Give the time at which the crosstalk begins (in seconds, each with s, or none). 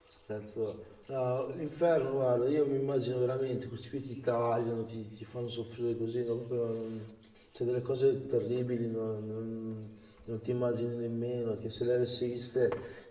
none